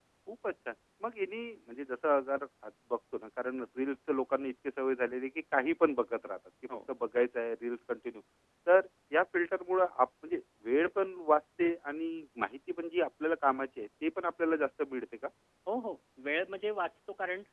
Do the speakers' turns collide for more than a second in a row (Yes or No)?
No